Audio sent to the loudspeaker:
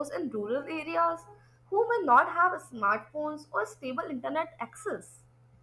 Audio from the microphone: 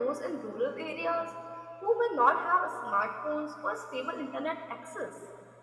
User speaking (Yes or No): No